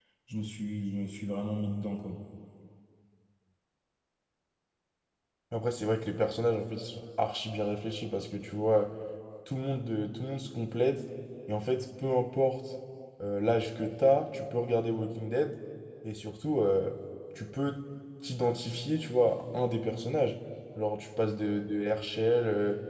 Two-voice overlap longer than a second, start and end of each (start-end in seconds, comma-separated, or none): none